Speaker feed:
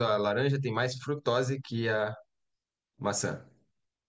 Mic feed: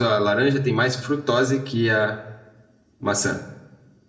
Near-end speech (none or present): none